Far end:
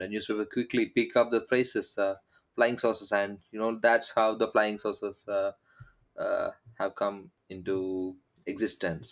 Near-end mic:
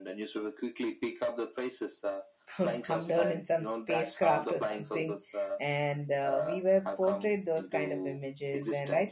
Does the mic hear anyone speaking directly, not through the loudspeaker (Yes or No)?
Yes